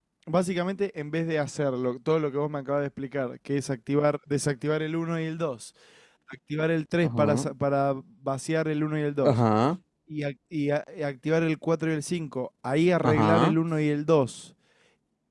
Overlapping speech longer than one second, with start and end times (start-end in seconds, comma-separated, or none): none